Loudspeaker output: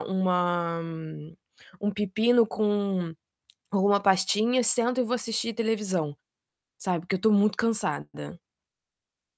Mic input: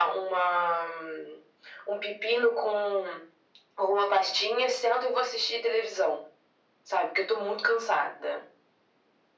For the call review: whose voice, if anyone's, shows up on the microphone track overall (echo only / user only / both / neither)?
echo only